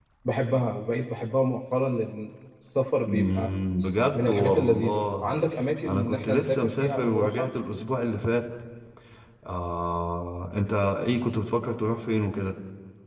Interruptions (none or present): present